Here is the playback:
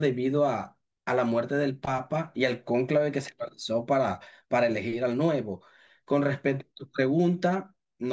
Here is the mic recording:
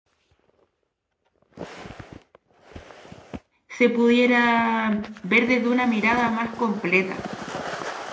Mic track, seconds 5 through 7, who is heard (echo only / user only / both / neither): user only